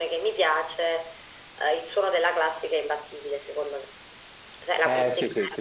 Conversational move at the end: taking over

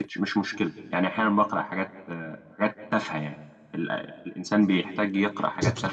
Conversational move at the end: taking over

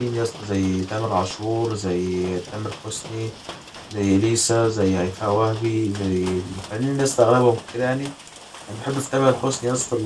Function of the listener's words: listening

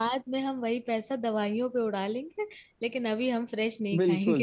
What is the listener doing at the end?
taking over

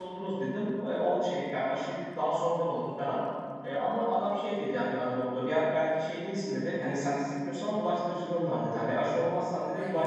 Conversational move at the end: listening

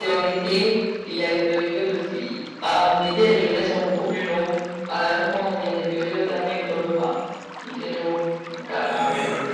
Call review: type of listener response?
taking over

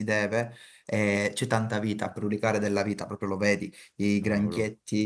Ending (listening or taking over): listening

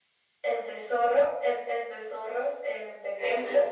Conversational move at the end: listening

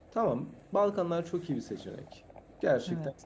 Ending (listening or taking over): listening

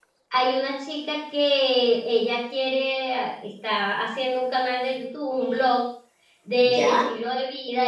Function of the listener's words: listening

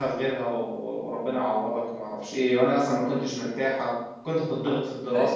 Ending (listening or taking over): listening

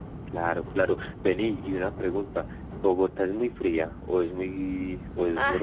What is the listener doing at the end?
taking over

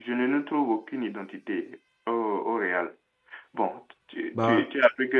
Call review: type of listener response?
listening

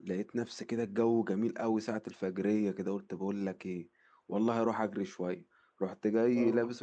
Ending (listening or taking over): listening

